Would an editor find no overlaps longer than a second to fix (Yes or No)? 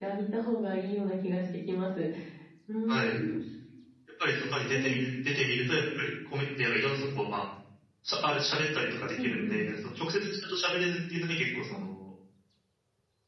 Yes